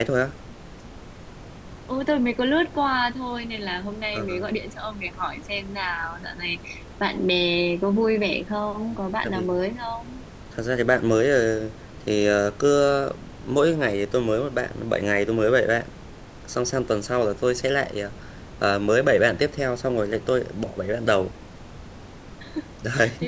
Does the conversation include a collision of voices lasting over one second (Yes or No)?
No